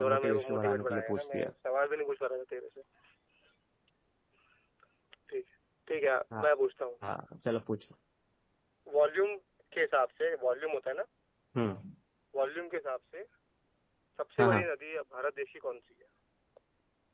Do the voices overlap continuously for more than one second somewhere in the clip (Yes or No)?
Yes